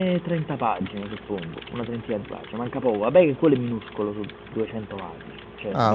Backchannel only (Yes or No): No